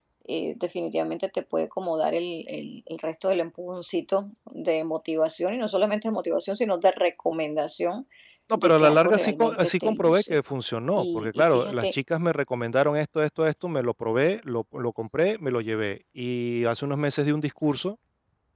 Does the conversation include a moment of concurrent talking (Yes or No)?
Yes